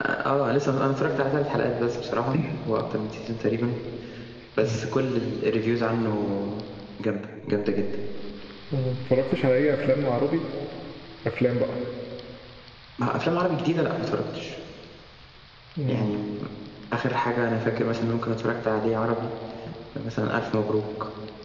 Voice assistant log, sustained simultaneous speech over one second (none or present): none